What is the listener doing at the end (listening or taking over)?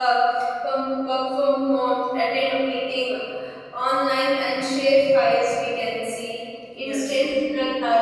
listening